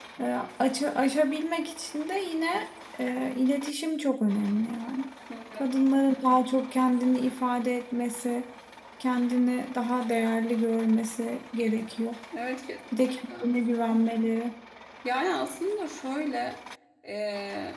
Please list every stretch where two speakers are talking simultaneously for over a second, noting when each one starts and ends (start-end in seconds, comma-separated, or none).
none